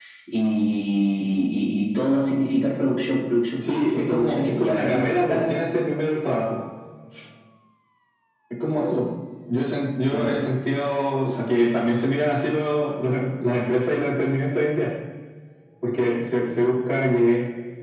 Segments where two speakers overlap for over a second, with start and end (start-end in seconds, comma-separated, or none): 3.6-5.6